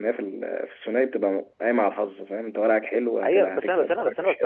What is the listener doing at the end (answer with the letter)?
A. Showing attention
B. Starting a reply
B